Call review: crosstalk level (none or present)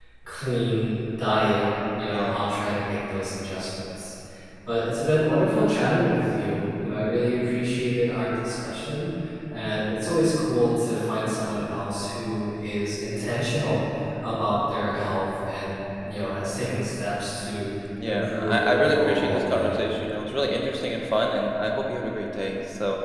present